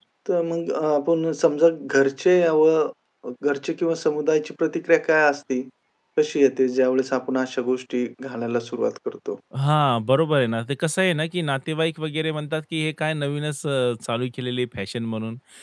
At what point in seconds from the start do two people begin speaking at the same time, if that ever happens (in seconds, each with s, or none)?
none